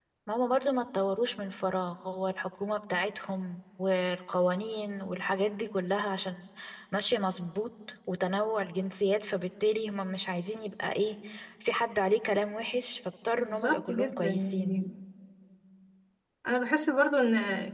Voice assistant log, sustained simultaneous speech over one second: present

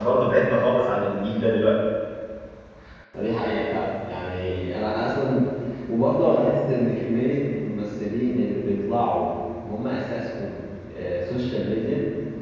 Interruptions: none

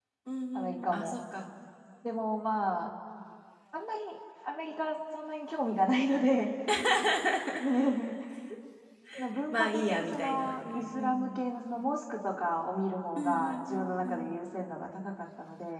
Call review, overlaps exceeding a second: present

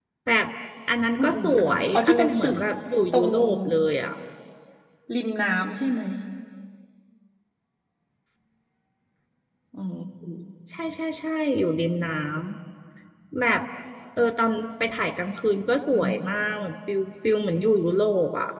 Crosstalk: present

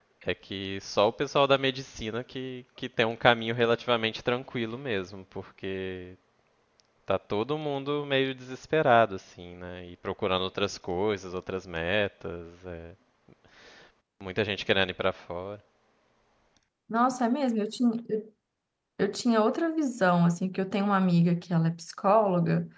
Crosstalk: none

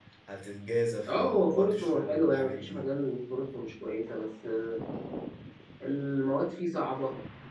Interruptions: present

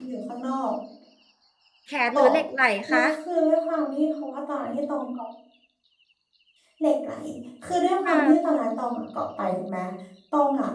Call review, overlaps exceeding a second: none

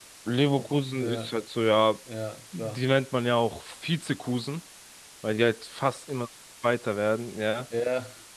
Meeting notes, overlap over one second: none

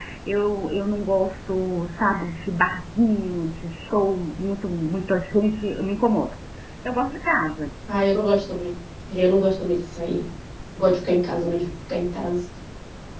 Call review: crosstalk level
none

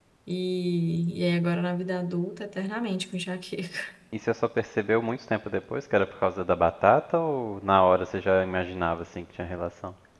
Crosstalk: none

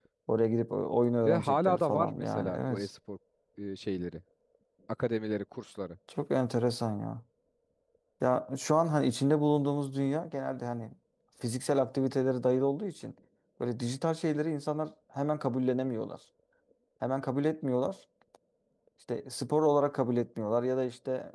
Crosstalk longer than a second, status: present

